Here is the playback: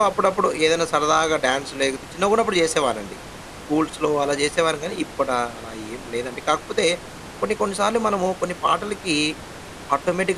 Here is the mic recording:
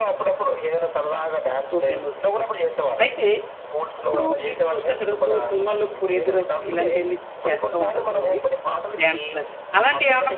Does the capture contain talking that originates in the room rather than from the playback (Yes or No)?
Yes